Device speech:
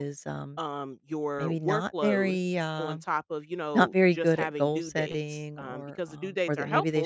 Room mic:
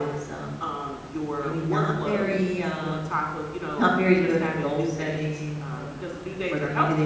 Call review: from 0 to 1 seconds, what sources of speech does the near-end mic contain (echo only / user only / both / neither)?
echo only